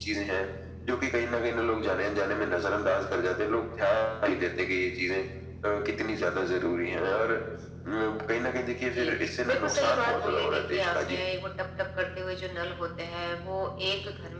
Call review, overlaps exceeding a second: present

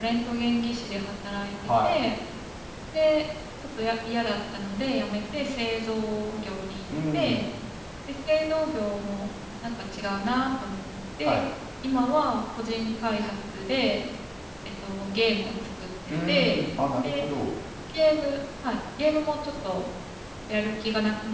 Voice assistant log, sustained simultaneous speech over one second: none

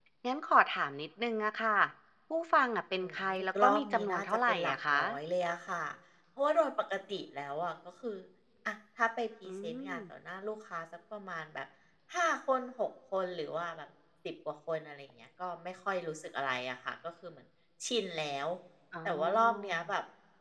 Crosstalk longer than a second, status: present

